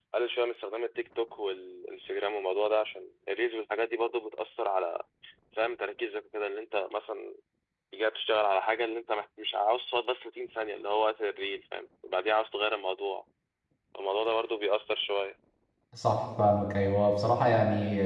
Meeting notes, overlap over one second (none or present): none